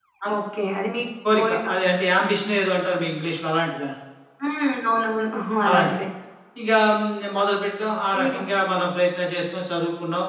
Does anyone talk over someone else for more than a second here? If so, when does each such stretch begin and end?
none

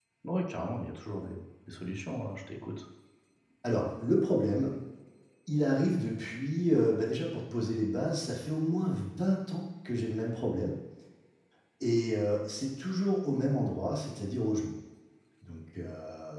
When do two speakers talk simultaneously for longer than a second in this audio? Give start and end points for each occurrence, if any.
none

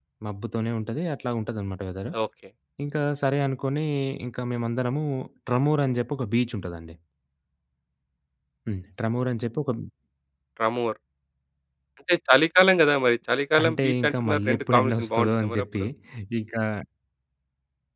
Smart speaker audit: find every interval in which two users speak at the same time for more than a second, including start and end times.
13.6-15.8

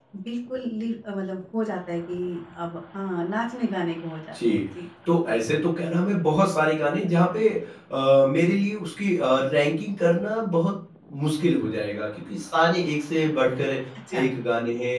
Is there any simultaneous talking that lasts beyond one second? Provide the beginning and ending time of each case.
none

